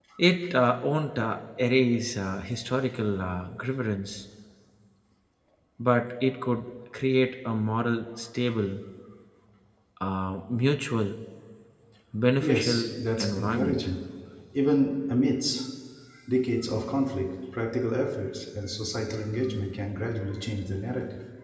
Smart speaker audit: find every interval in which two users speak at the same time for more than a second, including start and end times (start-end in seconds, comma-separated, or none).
12.4-13.8